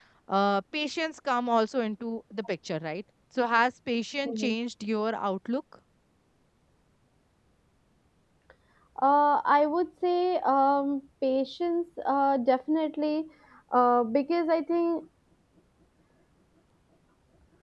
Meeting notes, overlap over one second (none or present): none